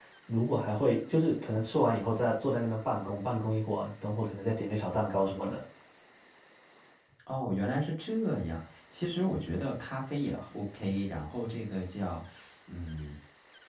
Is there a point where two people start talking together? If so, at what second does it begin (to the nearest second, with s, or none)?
none